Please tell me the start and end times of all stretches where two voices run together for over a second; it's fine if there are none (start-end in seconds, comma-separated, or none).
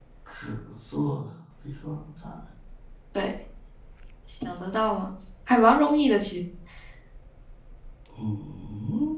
none